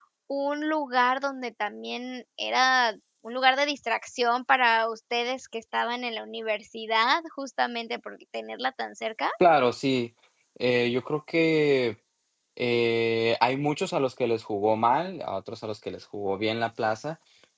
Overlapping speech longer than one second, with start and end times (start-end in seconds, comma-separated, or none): none